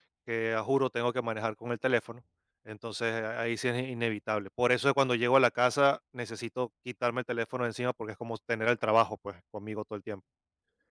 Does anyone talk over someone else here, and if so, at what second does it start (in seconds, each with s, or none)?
none